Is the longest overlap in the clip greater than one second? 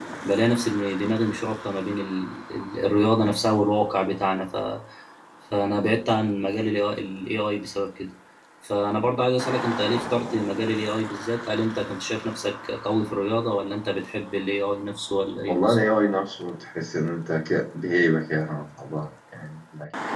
No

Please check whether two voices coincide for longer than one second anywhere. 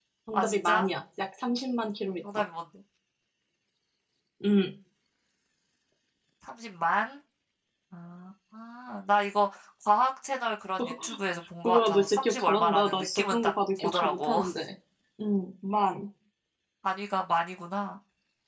Yes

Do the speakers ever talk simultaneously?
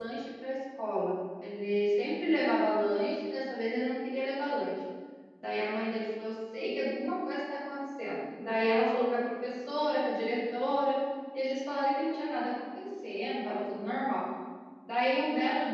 No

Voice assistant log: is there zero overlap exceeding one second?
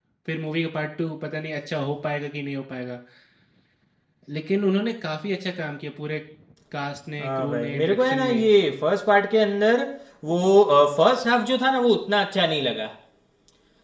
No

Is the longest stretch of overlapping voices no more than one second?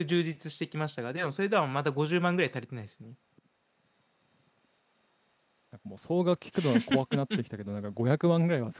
Yes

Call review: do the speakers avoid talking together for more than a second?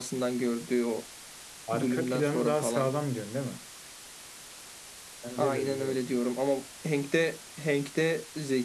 No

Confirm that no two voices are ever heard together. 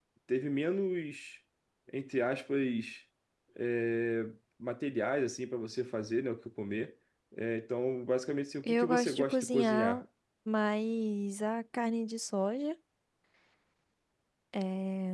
No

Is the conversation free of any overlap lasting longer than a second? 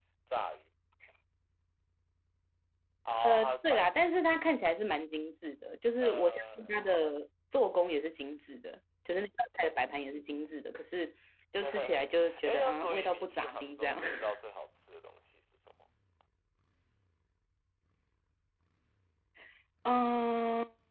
No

